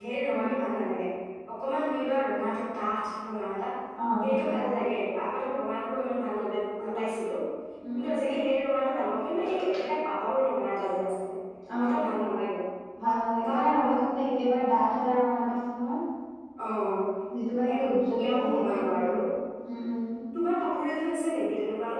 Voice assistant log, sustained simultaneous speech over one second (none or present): present